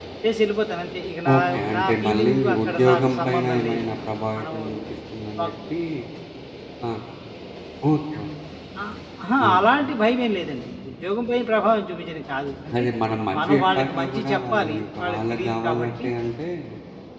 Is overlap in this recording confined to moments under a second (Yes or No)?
No